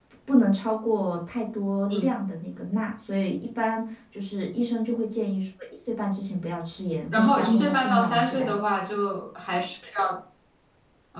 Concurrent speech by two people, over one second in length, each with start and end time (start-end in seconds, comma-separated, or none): 7.1-8.6